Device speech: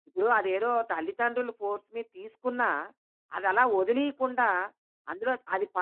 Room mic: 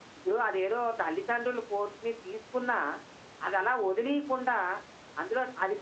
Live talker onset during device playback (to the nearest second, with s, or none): none